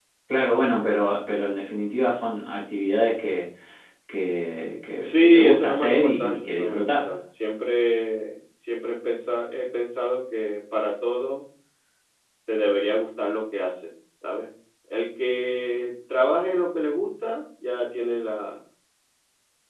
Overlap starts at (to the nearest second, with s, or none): 5 s